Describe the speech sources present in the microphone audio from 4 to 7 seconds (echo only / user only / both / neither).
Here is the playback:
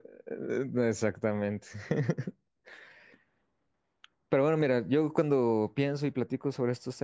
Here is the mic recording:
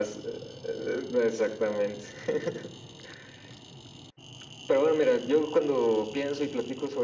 echo only